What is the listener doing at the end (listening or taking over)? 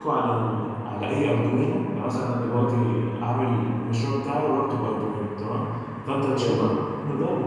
listening